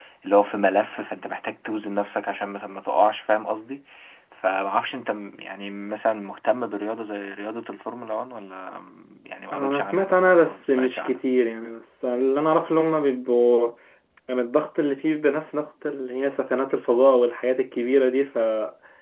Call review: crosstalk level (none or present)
present